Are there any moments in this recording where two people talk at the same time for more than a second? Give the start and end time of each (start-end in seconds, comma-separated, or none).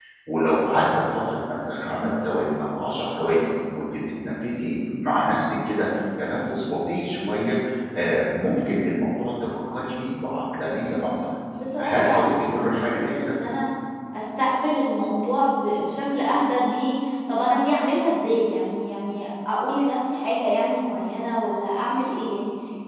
11.8-13.3